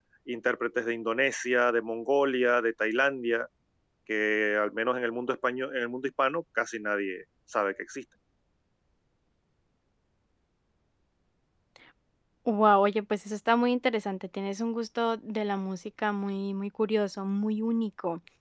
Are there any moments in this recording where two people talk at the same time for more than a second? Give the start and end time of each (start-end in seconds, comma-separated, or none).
none